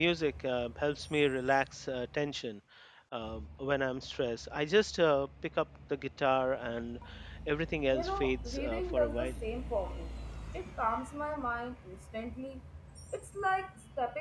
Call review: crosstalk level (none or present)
present